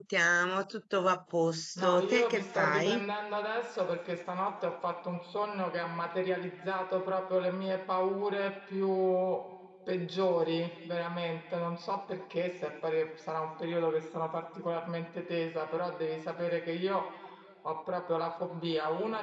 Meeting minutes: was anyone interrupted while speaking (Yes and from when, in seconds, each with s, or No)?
Yes, from 1.8 s